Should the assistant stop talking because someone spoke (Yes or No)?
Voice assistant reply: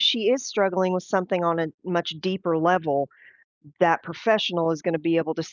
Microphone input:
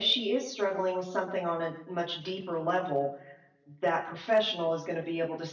No